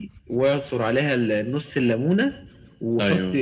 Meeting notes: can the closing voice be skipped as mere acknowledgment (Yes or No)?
Yes